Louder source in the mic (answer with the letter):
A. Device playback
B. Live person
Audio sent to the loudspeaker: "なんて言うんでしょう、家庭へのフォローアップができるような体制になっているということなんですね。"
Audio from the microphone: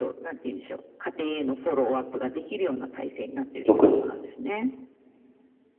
B